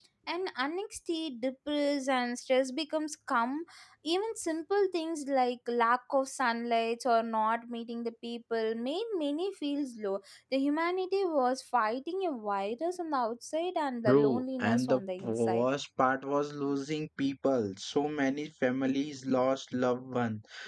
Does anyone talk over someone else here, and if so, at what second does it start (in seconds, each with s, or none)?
14.0 s